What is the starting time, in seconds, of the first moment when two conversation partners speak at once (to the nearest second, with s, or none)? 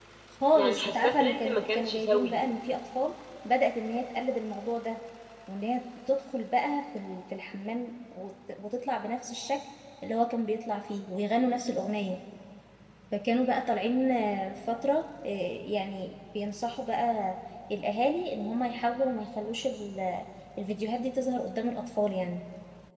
1 s